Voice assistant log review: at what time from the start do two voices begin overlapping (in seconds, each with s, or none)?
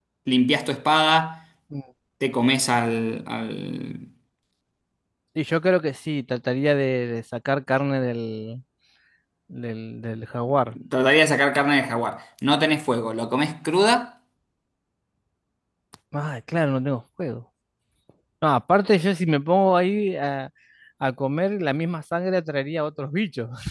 none